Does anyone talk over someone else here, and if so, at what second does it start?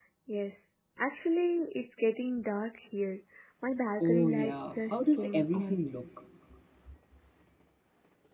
4.0 s

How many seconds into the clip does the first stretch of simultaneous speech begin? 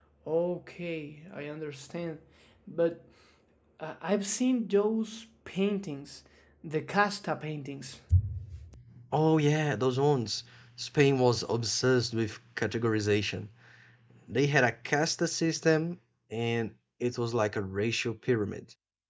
none

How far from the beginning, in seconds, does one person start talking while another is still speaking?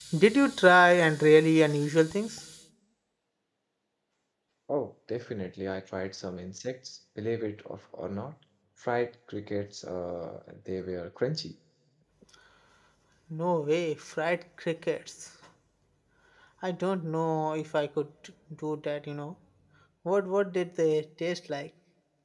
none

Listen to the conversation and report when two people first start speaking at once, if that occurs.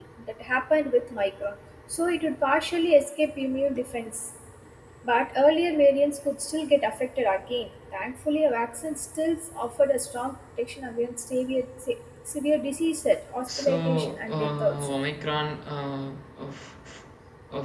13.5 s

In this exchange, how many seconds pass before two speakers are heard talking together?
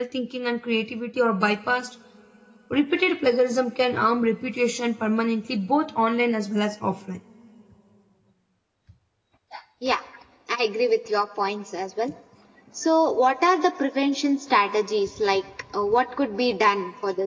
none

